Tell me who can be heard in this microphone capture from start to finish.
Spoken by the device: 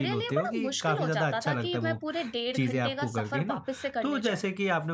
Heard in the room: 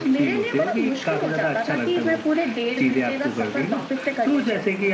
echo only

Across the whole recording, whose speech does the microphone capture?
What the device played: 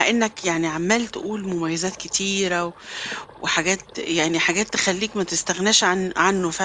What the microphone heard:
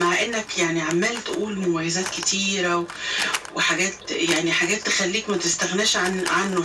echo only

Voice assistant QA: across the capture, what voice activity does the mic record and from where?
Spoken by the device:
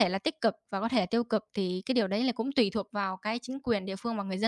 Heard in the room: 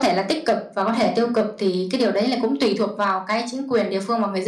echo only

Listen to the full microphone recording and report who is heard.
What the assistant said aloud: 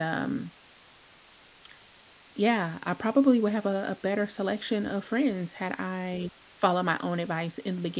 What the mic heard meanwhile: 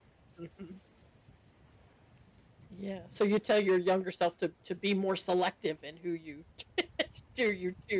user only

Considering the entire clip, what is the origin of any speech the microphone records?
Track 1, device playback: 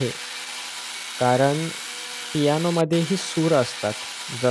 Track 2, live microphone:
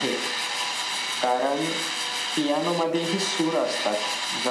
echo only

